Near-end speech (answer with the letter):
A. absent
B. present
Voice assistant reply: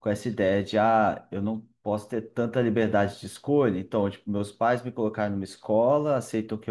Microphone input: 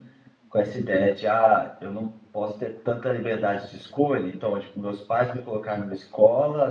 A